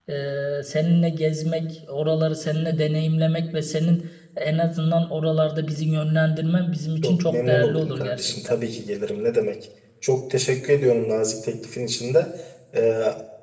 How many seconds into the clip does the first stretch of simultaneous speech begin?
7.0 s

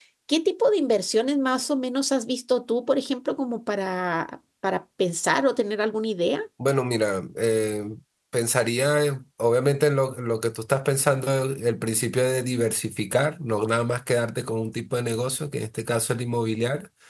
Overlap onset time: none

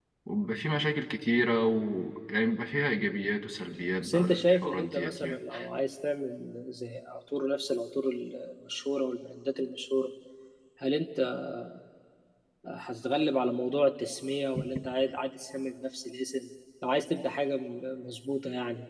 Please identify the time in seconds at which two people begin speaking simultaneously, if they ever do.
4.0 s

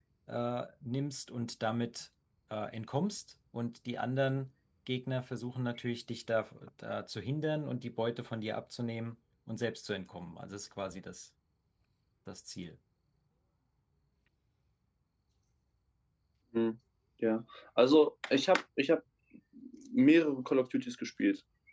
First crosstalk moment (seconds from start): none

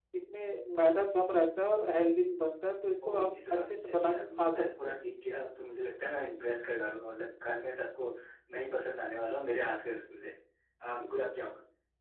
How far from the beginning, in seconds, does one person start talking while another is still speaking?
3.0 s

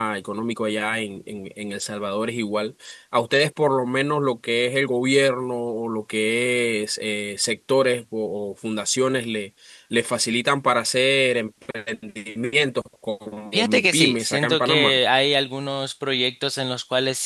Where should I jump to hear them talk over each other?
13.5 s

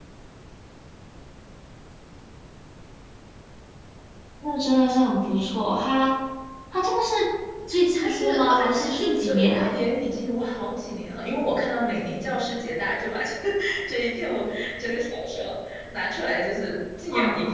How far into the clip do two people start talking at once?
7.9 s

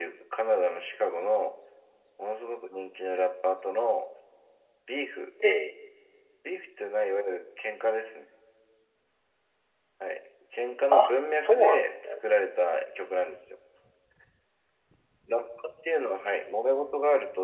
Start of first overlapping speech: 10.9 s

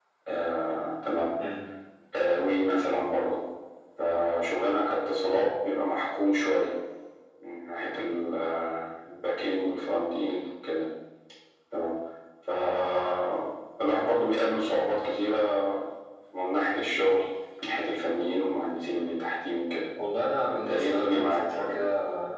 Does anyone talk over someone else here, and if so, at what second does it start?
20.5 s

